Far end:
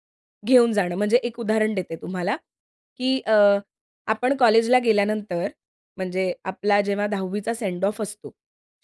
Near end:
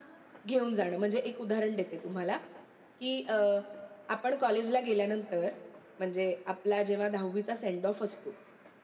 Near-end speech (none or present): none